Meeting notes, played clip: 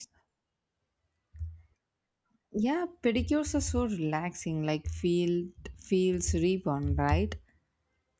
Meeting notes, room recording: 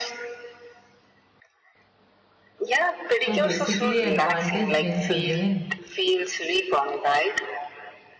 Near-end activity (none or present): present